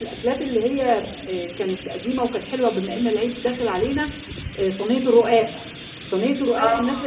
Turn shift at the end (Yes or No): No